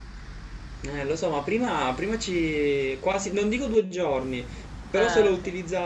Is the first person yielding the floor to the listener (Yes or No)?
No